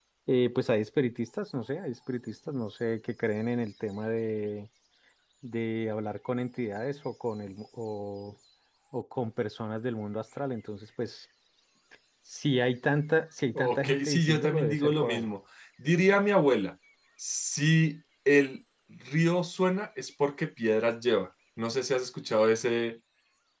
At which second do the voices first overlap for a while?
13.6 s

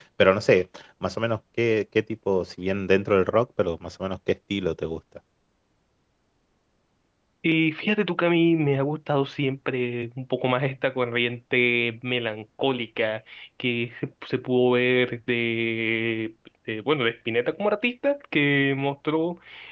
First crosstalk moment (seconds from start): none

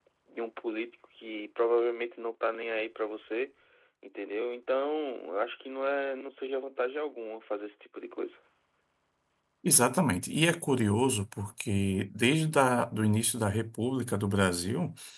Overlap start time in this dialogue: none

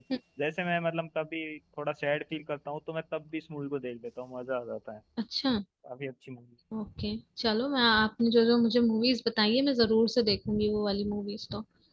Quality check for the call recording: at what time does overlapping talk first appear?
none

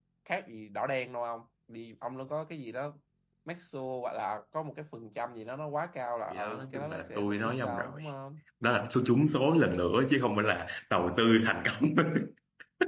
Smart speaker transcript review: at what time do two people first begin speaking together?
6.3 s

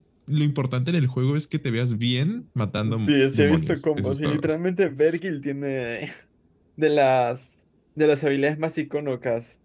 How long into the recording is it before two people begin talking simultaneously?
2.9 s

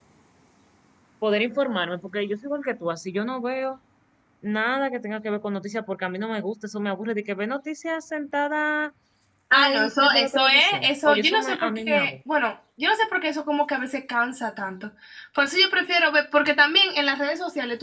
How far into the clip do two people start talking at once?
9.5 s

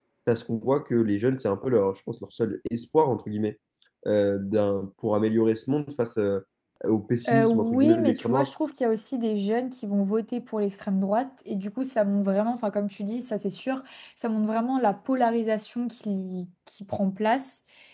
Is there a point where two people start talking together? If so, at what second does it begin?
7.3 s

